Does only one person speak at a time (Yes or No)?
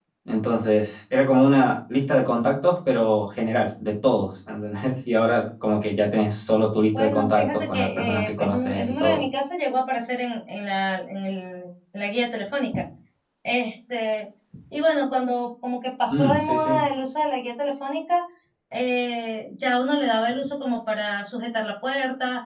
No